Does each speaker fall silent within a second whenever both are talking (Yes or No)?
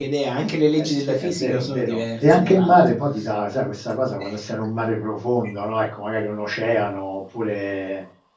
No